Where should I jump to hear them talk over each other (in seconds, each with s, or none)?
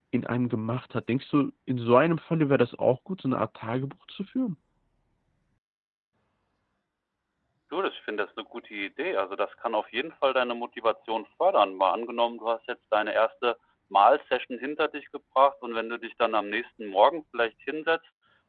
none